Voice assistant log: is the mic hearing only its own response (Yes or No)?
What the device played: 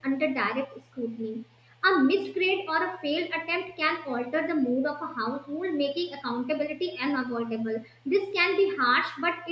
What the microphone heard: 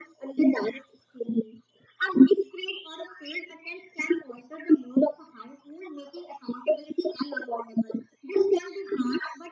Yes